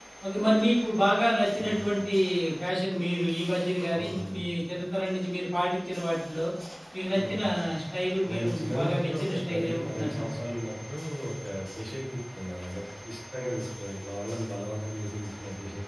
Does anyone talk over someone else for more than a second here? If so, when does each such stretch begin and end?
8.3-10.3

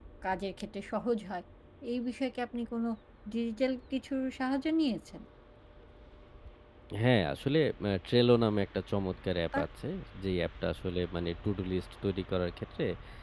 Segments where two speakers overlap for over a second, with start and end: none

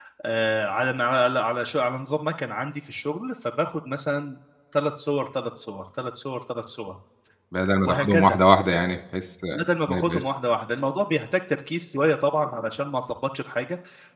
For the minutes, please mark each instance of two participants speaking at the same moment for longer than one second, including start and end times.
none

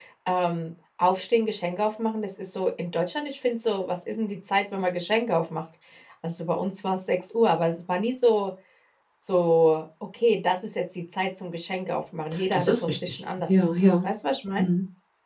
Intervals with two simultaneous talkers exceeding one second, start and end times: 12.5-13.8

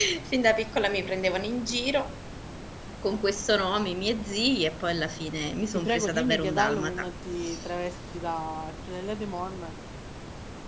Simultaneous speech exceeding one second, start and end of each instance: 5.8-7.1

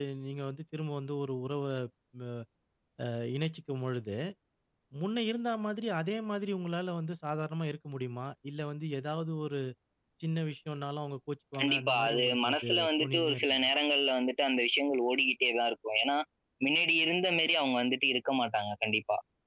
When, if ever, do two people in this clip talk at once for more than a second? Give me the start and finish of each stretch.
11.6-13.7

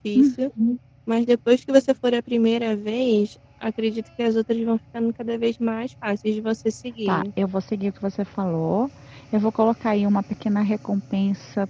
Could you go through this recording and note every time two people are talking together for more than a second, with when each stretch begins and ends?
none

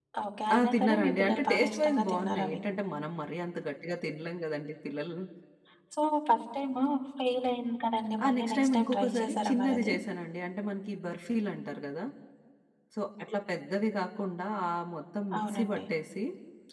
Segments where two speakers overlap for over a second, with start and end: 0.5-2.6, 8.2-9.9

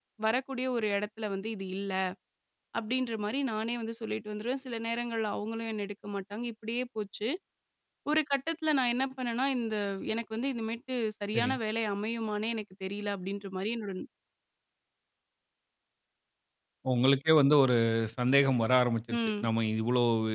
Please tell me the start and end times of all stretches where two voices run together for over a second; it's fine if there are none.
none

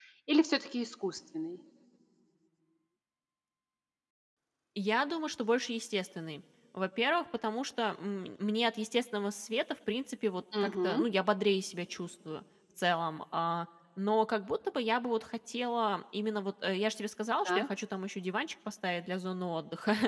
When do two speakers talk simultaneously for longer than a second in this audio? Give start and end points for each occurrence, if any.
none

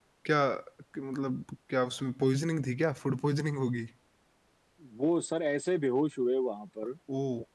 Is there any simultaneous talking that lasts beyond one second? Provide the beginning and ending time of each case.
none

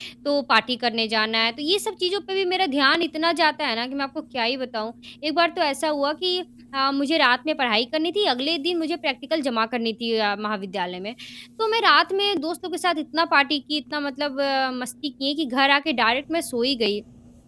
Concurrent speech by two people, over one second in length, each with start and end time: none

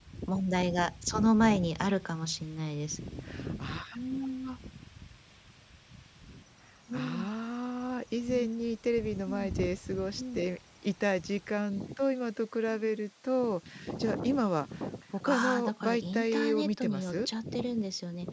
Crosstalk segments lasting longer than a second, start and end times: 15.2-17.3

